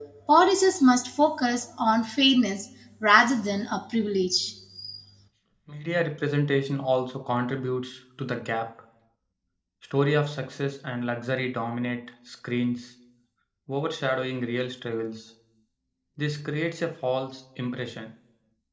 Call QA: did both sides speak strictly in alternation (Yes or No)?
Yes